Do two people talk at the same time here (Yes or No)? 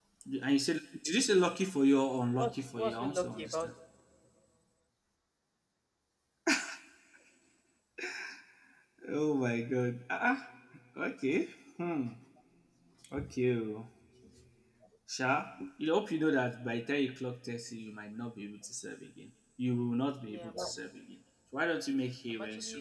Yes